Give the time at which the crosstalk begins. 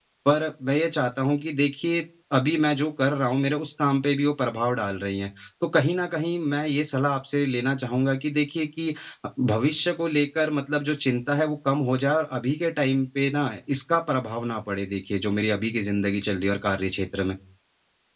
none

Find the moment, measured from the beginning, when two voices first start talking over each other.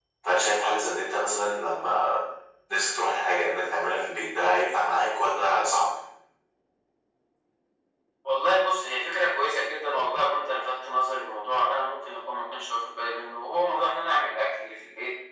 none

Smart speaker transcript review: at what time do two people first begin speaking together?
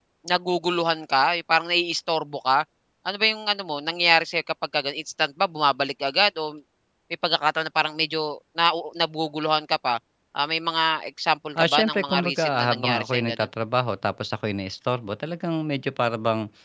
11.6 s

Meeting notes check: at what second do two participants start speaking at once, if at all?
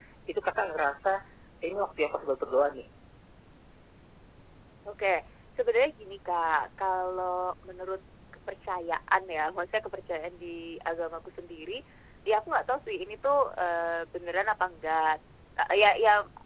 none

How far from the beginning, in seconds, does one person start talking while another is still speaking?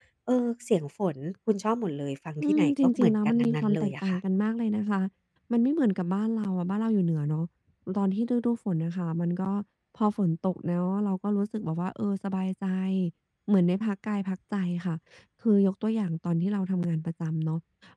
2.4 s

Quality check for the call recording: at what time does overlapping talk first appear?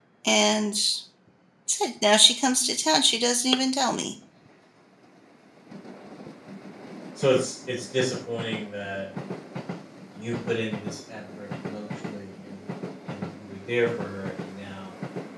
none

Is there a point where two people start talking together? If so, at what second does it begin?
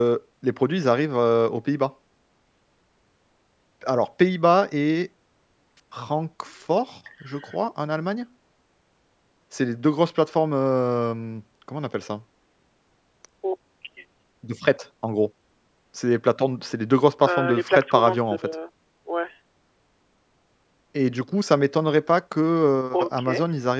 17.3 s

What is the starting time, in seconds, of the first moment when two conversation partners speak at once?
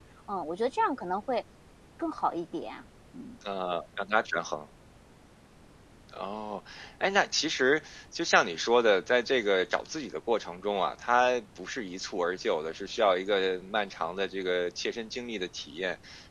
none

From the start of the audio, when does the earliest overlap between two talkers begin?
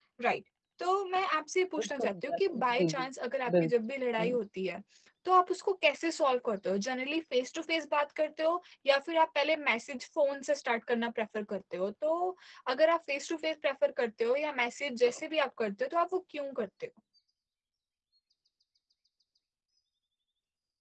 1.8 s

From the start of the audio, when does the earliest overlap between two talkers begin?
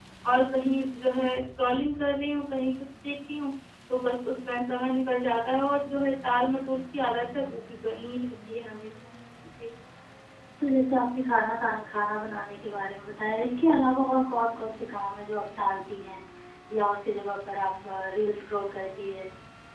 none

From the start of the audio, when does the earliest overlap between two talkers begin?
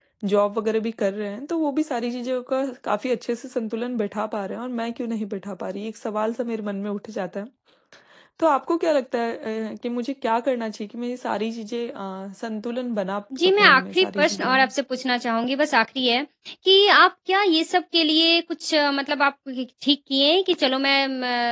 13.3 s

